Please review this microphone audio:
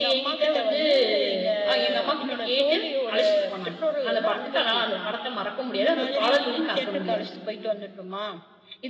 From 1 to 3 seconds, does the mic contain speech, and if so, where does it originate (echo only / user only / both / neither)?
both